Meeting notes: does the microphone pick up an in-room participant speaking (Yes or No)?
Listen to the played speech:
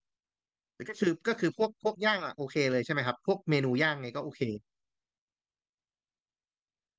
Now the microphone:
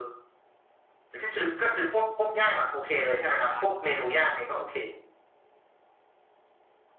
Yes